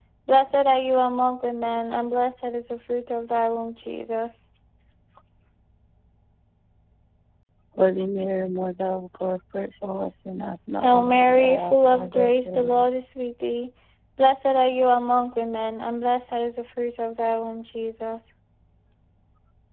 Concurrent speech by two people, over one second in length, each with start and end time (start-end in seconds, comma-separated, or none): 10.8-12.9